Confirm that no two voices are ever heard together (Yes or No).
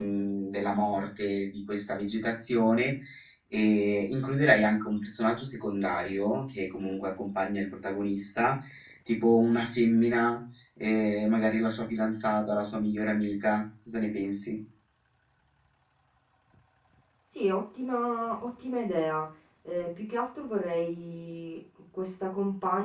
Yes